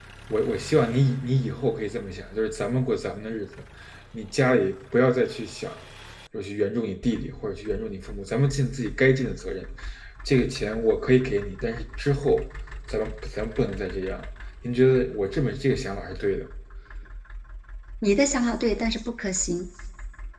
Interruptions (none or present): none